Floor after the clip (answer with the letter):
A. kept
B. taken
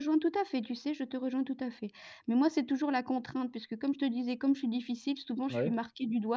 A